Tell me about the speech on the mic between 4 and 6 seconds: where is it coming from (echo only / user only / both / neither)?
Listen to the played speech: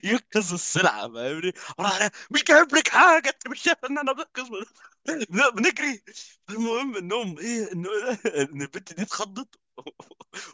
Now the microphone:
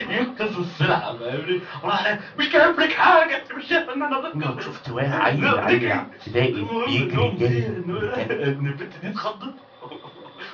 both